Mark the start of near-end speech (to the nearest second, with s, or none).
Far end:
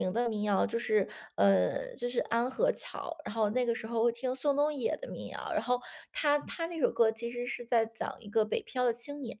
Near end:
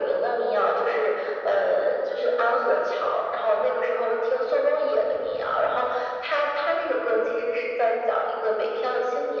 none